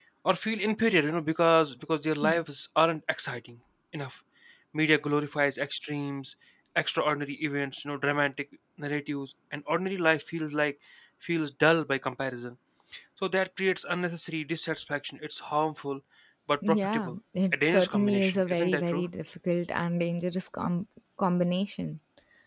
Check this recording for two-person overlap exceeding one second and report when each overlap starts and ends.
17.7-19.1

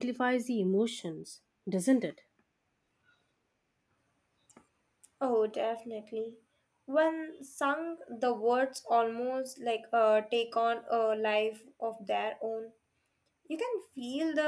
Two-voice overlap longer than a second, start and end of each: none

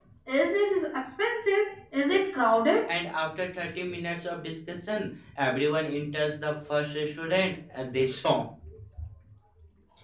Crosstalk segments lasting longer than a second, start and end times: none

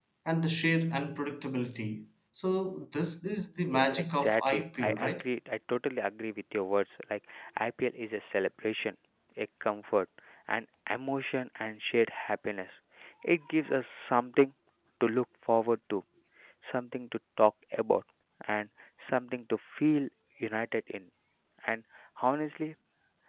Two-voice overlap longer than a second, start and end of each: 3.7-5.2

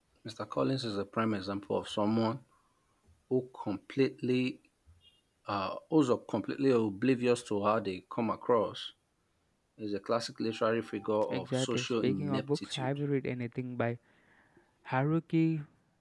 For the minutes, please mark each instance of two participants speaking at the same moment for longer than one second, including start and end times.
11.3-12.9

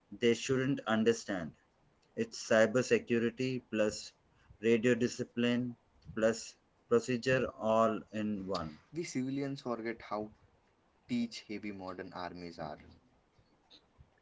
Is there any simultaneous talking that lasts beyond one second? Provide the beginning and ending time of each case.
none

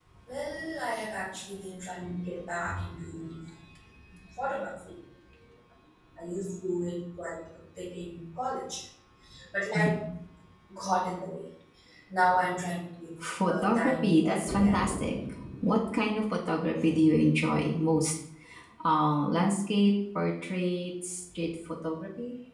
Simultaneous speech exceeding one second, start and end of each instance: 13.4-15.2

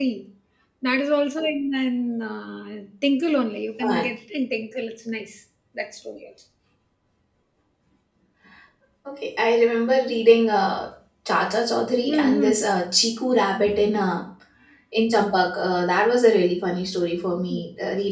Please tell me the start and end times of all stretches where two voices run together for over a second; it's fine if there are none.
none

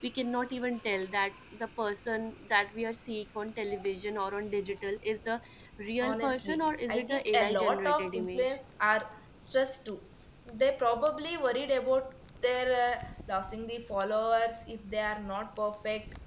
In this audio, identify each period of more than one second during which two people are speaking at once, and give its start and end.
6.0-8.6

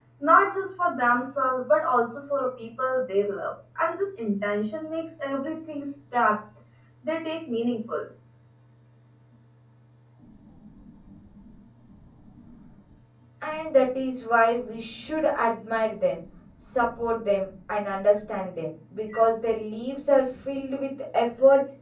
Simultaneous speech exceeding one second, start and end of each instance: none

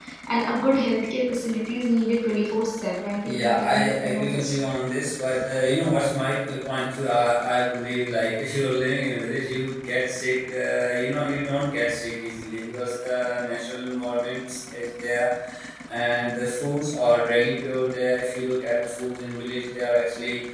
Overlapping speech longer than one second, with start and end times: 3.2-4.6

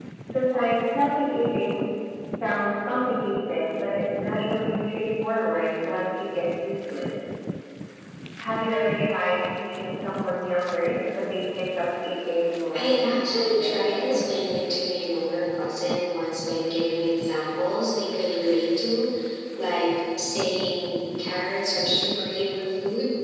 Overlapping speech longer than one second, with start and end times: 12.7-14.3

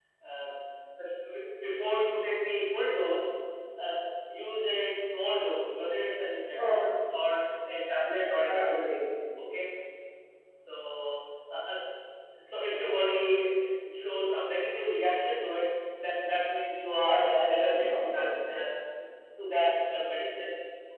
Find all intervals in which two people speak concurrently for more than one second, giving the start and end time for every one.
17.1-18.3

